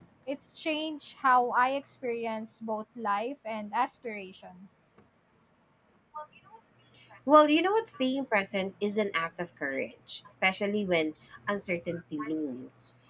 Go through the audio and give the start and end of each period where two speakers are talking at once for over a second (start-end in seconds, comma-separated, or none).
none